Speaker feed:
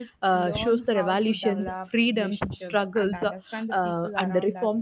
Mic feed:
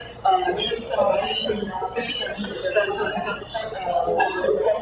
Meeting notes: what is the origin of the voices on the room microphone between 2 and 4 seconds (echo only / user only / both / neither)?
echo only